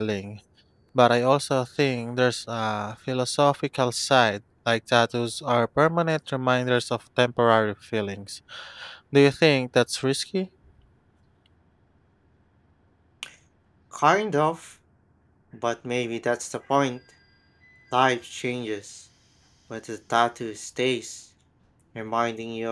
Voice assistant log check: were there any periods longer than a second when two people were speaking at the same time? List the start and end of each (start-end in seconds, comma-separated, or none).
none